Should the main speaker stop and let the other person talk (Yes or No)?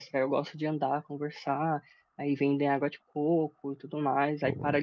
No